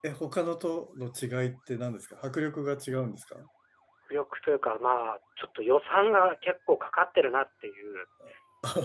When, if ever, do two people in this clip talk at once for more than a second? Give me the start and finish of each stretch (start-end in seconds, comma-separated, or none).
none